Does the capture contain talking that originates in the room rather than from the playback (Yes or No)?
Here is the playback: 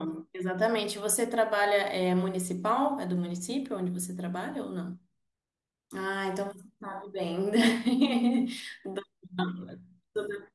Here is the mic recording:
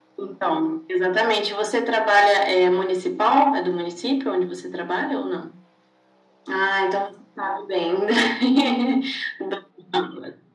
No